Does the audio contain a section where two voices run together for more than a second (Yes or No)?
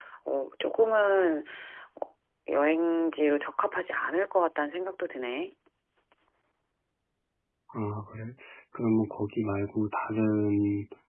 No